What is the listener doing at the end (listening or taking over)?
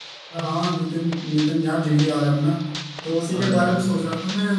listening